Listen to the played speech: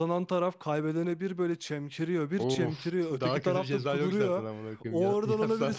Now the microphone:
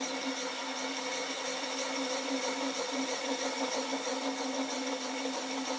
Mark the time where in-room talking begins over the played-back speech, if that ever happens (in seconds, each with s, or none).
none